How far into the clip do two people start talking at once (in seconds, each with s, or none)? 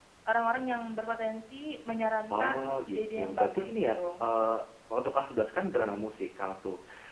2.3 s